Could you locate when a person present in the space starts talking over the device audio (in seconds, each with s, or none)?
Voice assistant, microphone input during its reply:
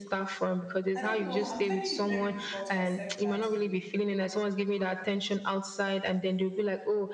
0.9 s